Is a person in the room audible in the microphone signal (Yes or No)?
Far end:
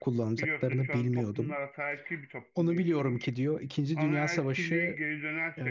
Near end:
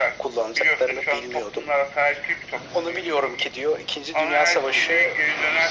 No